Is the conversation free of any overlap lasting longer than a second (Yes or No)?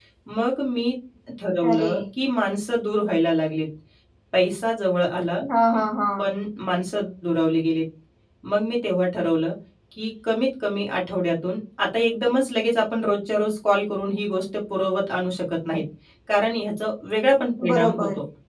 Yes